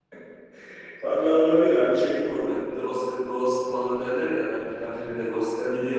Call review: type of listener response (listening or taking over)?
listening